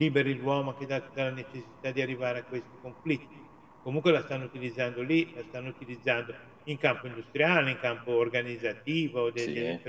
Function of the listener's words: listening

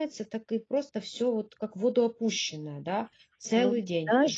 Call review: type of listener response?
taking over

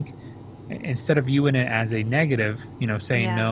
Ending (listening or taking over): listening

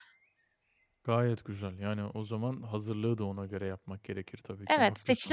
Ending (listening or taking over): taking over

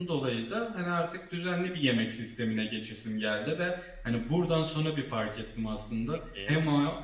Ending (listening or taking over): listening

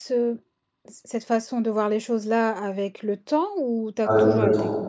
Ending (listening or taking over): taking over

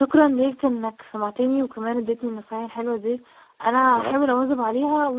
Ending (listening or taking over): listening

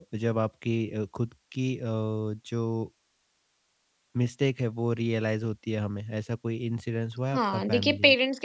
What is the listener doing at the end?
taking over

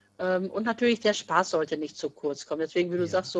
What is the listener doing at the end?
listening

